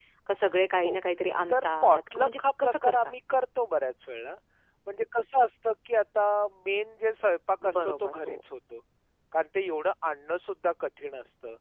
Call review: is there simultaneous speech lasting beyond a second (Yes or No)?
Yes